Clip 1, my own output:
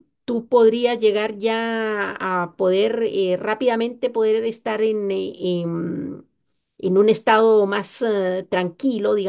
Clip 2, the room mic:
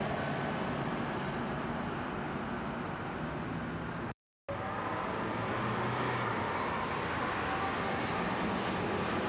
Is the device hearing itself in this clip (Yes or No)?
No